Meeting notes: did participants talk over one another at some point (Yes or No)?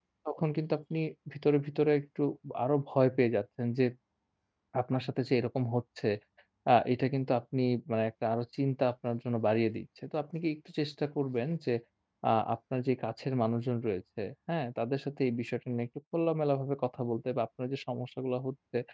No